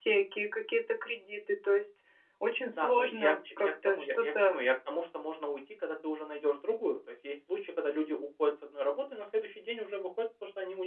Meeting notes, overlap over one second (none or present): present